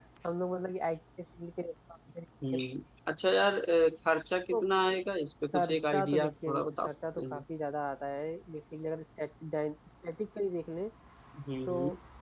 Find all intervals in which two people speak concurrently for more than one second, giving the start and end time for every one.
5.5-7.4

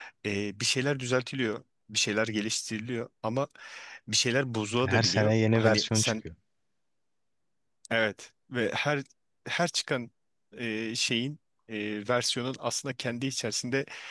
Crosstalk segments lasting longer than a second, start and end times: 4.8-6.1

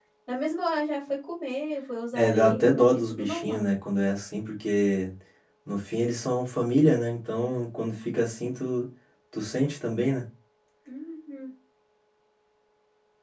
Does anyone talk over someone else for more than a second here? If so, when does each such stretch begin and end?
2.1-3.6

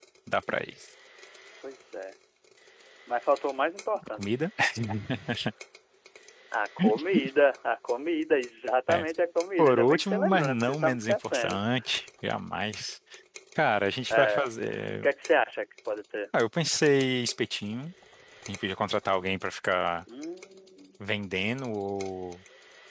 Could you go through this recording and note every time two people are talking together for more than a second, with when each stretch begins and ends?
9.6-11.6

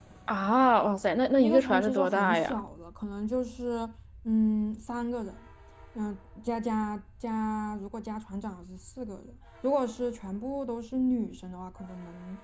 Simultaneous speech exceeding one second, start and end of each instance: 1.4-2.6

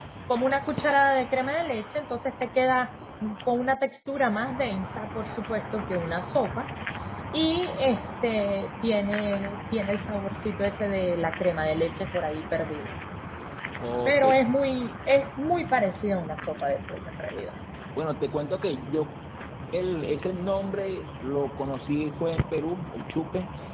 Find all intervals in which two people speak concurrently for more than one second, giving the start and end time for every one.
none

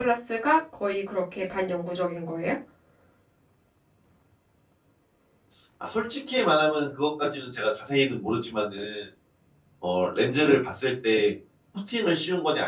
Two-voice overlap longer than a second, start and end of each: none

